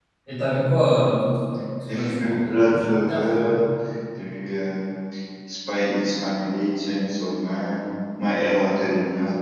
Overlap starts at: 1.8 s

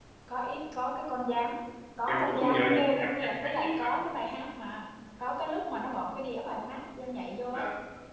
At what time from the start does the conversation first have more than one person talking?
2.1 s

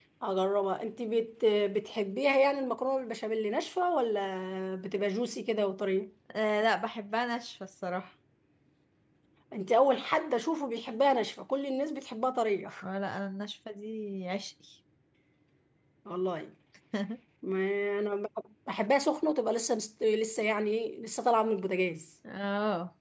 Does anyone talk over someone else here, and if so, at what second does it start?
none

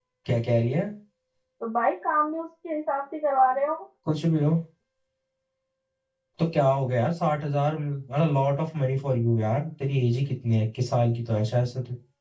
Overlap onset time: none

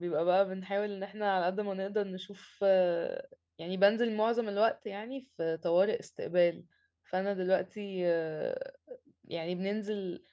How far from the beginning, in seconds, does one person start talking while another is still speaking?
none

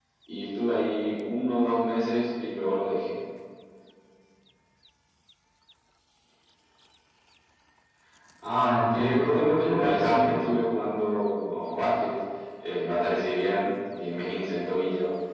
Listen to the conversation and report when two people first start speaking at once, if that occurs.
8.9 s

